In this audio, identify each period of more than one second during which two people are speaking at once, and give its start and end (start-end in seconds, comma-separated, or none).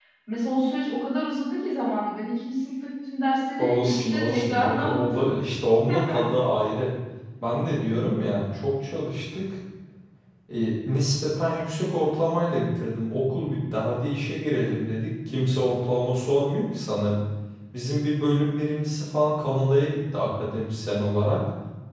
3.6-5.3